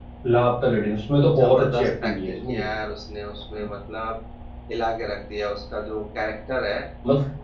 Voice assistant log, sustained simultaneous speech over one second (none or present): present